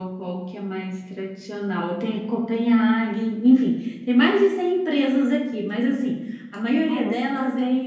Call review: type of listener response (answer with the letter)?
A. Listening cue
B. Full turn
A